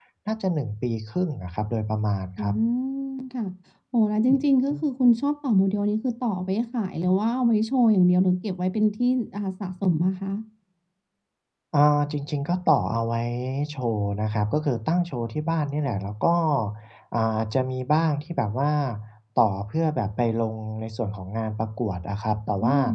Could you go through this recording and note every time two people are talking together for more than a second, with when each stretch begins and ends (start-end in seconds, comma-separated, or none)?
none